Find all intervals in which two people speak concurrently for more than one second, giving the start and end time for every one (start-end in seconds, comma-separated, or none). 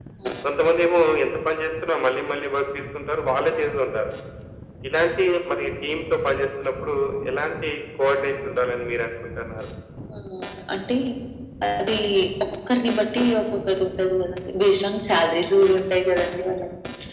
none